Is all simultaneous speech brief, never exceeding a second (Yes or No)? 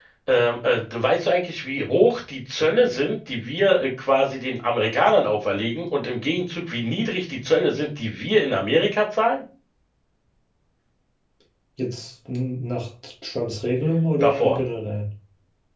Yes